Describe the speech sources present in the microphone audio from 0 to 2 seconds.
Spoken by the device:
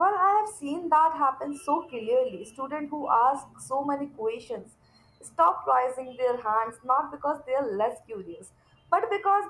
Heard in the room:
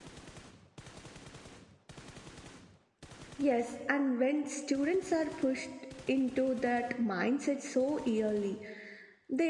neither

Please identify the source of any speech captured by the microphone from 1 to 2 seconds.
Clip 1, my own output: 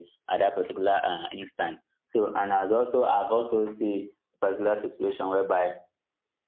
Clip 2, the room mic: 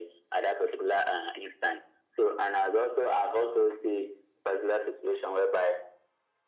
echo only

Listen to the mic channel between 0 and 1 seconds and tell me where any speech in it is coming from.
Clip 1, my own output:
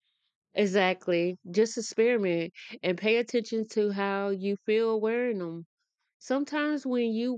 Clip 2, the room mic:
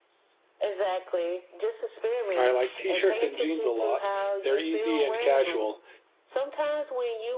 echo only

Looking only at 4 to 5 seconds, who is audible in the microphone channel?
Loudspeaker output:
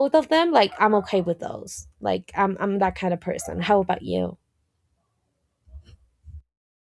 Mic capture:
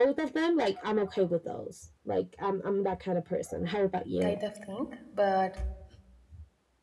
both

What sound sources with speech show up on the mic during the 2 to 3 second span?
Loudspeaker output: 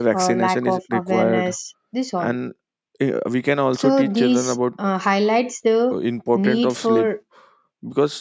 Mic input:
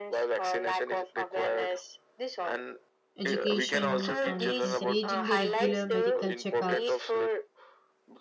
echo only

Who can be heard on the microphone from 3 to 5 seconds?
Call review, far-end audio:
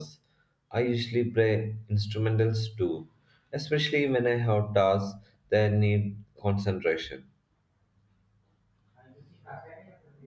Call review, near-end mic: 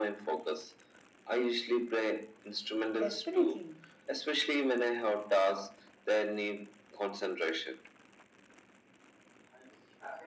both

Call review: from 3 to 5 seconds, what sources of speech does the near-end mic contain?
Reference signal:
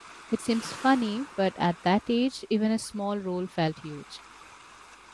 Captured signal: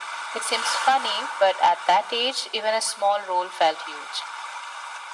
echo only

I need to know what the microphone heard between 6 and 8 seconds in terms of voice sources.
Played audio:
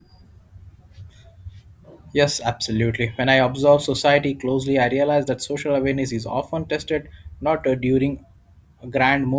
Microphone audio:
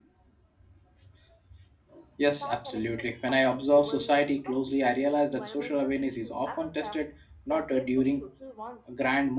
both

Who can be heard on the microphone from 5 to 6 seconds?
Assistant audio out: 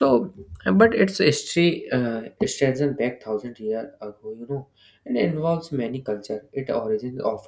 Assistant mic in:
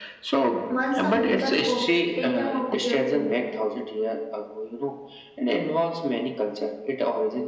echo only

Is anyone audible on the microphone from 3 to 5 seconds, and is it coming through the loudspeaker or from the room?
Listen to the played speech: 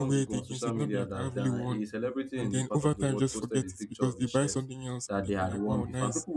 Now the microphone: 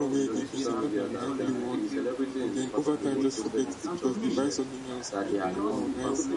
both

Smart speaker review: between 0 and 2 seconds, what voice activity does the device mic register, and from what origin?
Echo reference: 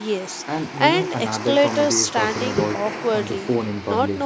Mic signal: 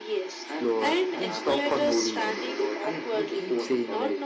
both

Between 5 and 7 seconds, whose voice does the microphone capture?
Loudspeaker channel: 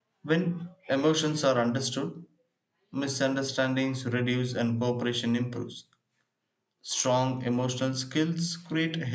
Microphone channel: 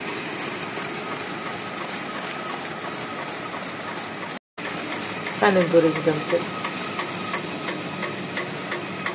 user only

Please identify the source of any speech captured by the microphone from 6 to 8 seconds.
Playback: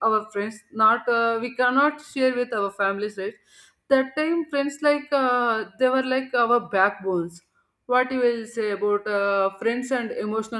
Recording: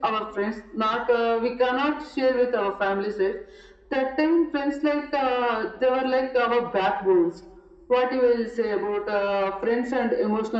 echo only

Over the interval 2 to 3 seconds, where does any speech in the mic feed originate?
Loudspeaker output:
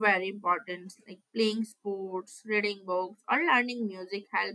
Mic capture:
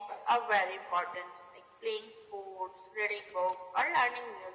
echo only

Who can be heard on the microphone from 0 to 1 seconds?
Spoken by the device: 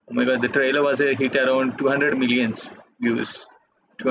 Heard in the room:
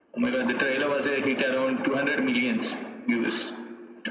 echo only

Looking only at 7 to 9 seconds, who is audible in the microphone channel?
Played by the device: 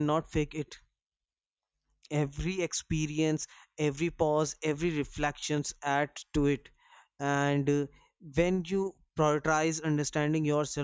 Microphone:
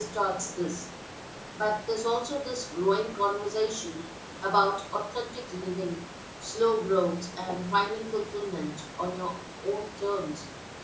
user only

